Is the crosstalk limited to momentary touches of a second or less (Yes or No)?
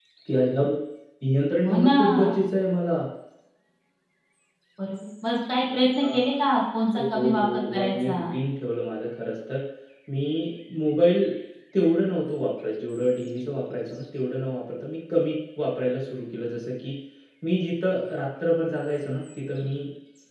No